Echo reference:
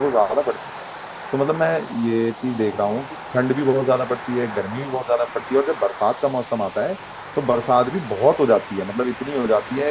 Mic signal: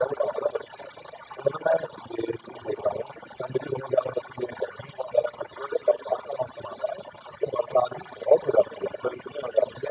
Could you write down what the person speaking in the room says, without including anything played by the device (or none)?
none